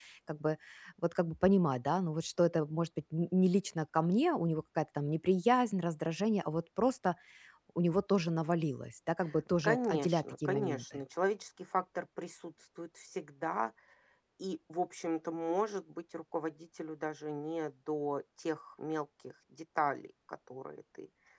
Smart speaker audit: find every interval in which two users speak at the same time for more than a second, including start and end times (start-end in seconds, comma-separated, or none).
9.6-10.8